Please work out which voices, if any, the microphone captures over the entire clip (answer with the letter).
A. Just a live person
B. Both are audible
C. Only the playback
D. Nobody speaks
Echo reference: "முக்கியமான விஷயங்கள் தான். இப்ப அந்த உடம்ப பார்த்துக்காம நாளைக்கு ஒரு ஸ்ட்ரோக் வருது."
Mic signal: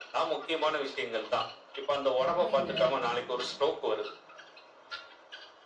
B